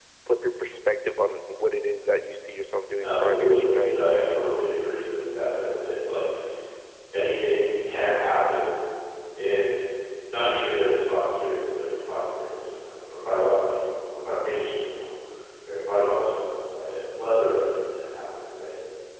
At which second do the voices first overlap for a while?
3.0 s

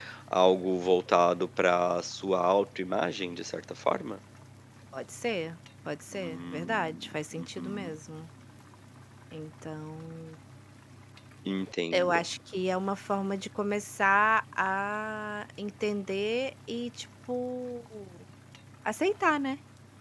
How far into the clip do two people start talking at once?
6.1 s

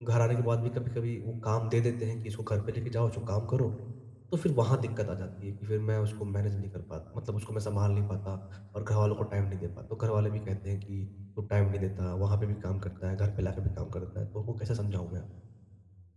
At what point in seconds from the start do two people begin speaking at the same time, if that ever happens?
none

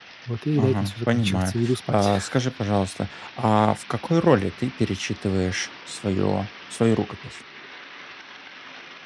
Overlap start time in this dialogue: 0.5 s

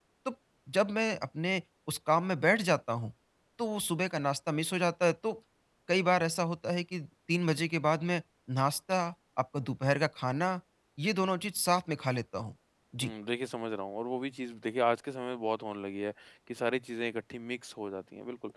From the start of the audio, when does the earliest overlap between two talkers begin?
none

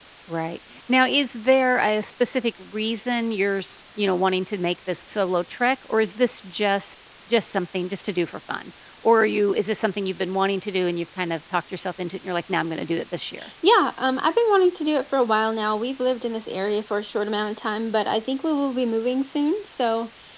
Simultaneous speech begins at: none

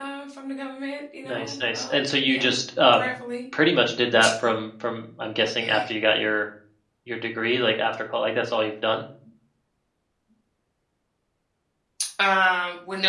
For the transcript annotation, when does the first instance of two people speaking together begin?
1.2 s

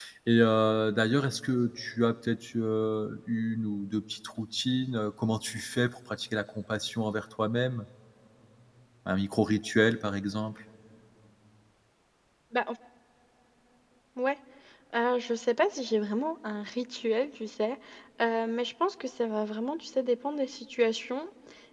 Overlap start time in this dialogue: none

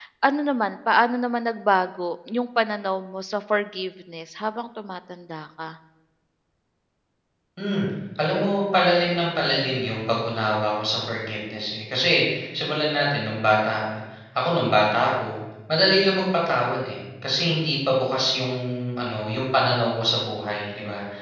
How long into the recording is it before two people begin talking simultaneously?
none

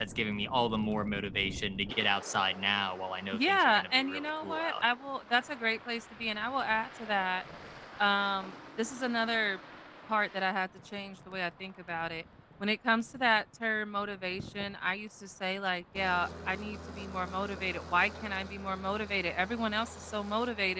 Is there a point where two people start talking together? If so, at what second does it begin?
3.3 s

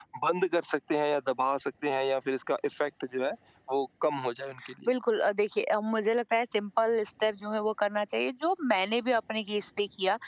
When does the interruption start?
none

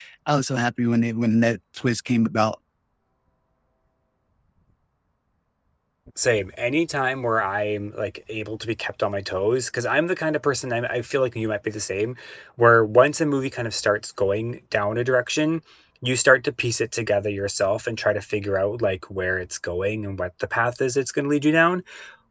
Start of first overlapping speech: none

